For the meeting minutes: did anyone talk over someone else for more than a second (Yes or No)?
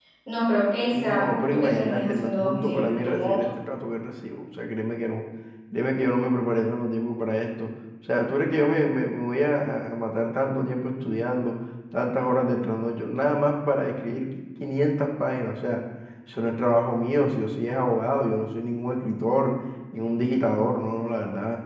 Yes